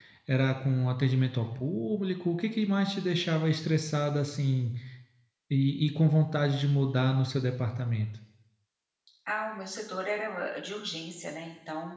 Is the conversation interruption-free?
Yes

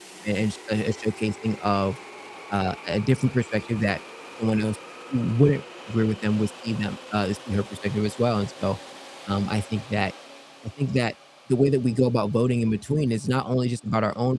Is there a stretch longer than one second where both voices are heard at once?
No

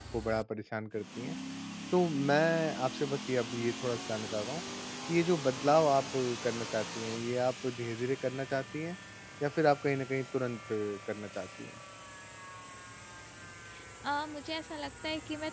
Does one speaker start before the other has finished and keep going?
No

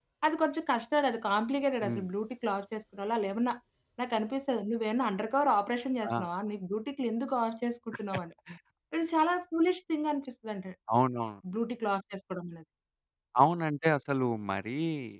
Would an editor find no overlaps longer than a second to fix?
Yes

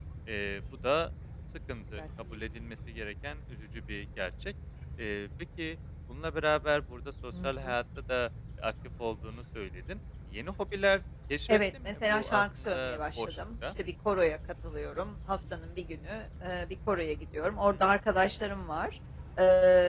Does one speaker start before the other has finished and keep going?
Yes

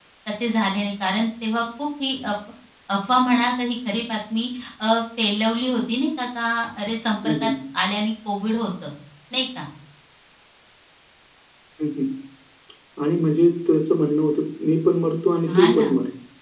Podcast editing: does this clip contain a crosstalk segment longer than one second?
No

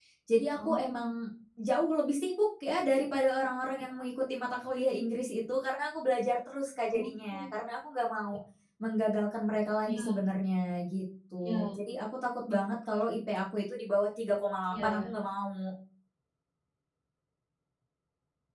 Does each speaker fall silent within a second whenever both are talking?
Yes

